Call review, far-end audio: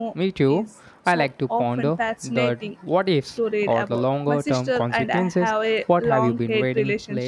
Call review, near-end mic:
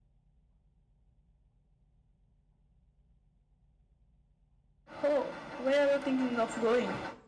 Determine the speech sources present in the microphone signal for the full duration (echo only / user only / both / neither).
user only